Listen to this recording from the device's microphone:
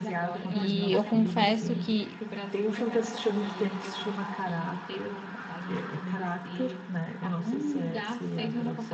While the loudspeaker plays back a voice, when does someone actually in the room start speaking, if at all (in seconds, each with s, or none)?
0.5 s